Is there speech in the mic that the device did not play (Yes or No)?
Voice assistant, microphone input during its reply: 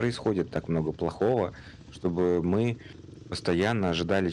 Yes